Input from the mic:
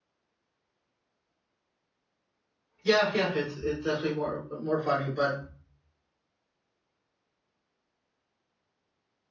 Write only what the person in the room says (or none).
Yeah, yeah, it's it's definitely more more funny, but